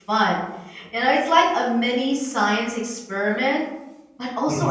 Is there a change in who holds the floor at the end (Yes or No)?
No